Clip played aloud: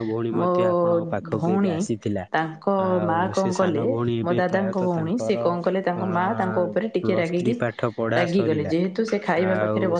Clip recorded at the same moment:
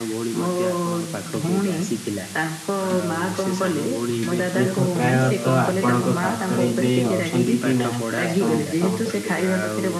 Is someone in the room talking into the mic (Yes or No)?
Yes